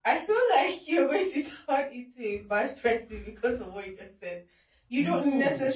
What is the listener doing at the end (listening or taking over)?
listening